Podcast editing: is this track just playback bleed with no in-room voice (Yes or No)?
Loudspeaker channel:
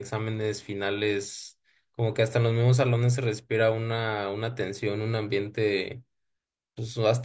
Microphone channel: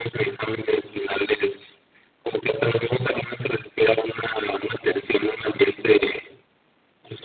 Yes